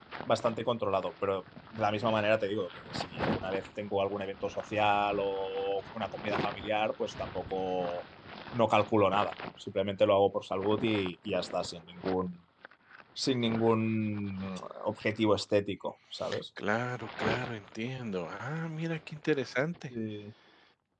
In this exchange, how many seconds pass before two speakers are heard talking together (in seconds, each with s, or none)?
none